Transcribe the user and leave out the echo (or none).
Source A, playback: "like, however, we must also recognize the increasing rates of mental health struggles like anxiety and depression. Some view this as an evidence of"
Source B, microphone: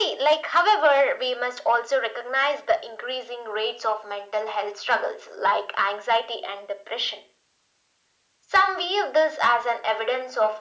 none